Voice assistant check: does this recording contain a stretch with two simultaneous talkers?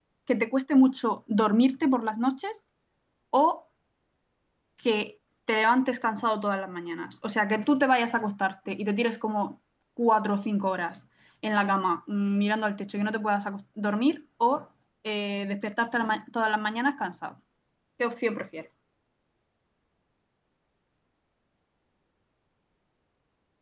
No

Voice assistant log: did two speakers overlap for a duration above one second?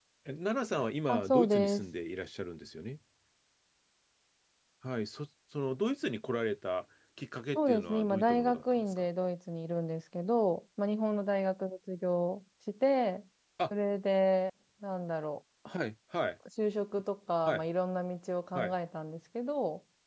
Yes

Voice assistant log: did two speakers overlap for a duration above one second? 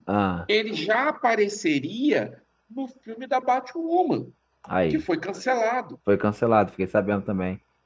No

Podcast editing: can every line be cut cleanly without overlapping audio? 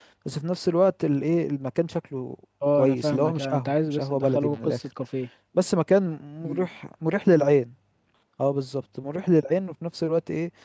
No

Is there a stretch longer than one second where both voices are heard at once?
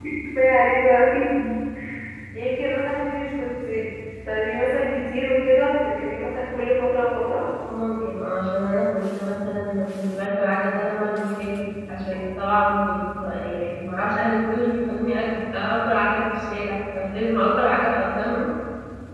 No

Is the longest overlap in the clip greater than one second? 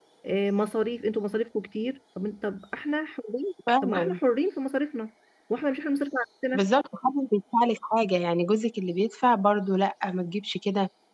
No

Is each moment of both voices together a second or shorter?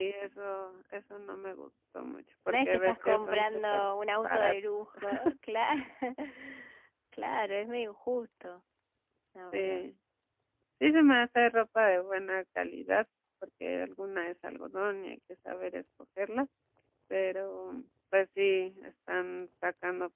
No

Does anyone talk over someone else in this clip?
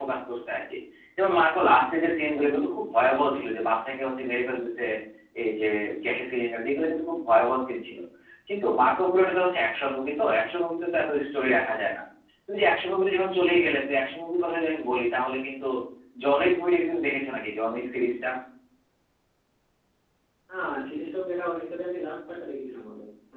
No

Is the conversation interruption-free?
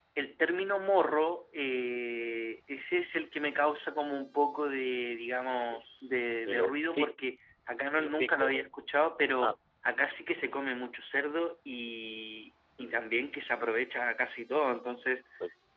No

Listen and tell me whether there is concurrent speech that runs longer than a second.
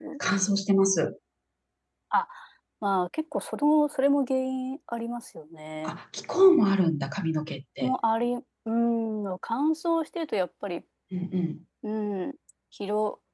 No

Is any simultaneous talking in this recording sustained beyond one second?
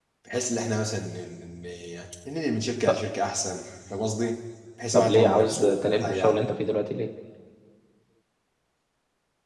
Yes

